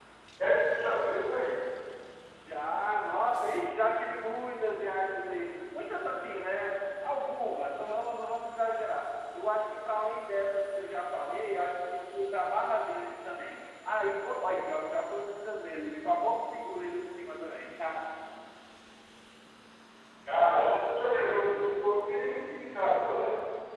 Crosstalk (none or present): none